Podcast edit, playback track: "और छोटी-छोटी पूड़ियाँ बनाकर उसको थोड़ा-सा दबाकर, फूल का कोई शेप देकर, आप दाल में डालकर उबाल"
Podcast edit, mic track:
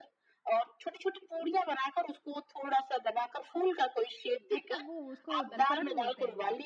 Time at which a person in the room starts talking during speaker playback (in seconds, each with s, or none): 4.5 s